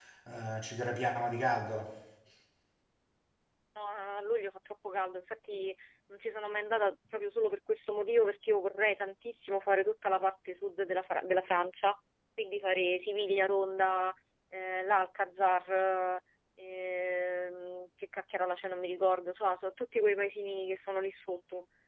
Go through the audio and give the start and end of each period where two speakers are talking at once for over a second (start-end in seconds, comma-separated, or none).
none